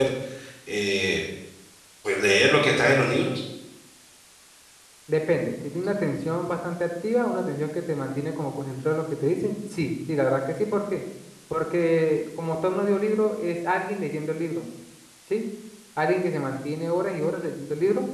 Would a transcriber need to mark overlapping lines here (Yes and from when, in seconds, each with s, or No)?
No